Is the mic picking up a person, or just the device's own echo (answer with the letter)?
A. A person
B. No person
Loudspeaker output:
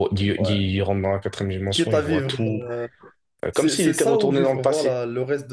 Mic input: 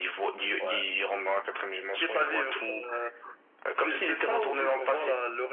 B